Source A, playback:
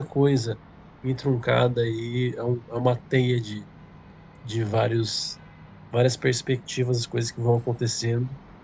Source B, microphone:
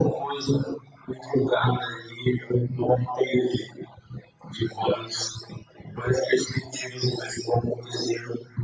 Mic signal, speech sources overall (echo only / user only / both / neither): echo only